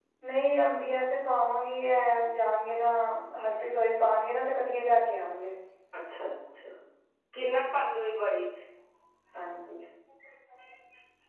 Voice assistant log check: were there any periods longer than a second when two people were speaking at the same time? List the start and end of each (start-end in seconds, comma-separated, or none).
none